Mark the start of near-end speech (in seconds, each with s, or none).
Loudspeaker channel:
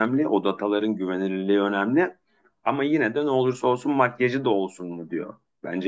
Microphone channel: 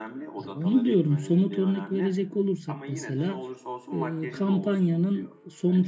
0.4 s